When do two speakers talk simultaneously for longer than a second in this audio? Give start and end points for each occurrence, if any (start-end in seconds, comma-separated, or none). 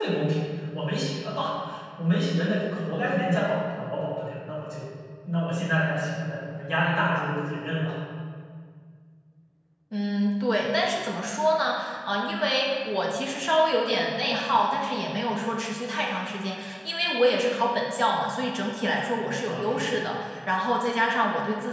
none